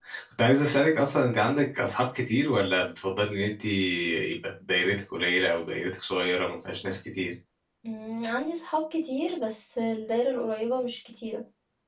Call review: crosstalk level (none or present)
none